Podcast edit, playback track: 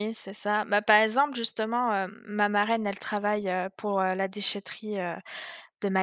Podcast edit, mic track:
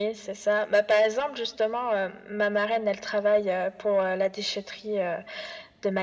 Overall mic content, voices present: echo only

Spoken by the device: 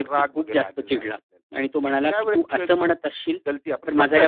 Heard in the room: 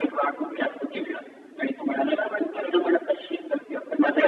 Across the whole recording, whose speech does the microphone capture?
echo only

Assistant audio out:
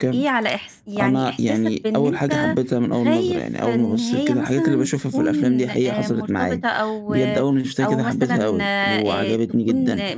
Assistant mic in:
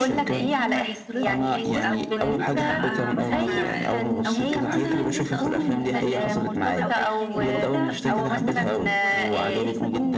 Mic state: both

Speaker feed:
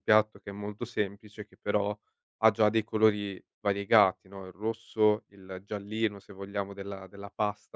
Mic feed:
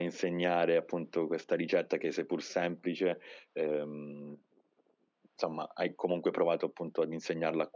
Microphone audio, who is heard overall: user only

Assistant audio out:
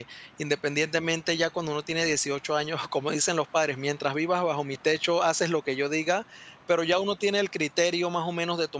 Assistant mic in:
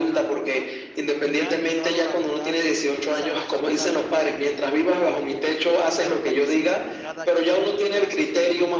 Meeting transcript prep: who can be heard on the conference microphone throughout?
both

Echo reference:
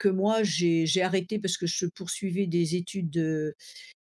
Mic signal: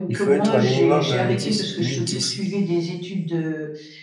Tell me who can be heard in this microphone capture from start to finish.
both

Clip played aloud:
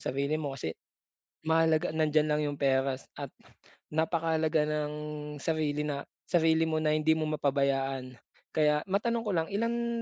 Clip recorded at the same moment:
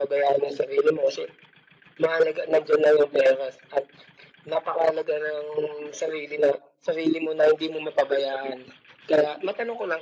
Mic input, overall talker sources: echo only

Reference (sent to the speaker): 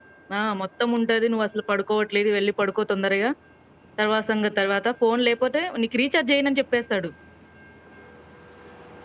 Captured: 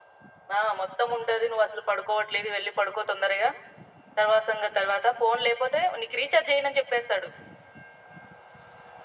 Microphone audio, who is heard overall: echo only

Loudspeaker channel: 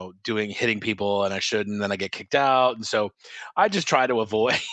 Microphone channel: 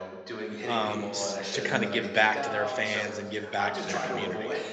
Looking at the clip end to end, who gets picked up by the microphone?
both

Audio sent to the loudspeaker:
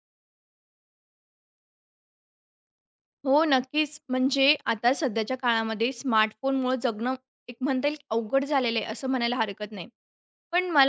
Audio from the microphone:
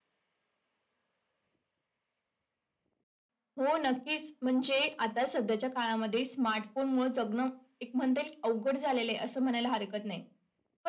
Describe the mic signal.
echo only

